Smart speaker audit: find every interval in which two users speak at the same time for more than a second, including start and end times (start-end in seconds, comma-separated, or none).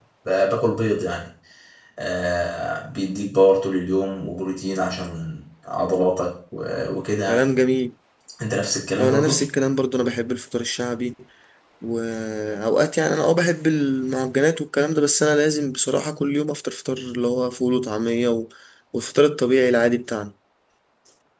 none